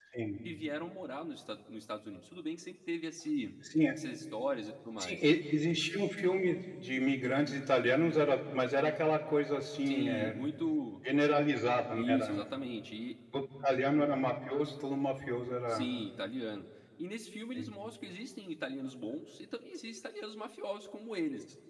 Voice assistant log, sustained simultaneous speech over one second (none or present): none